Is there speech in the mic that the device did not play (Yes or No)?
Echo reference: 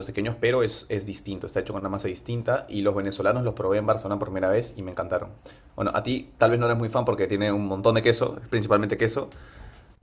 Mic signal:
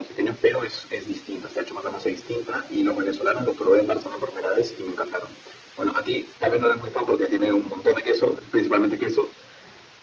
No